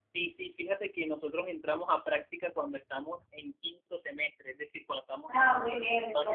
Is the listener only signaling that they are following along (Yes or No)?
No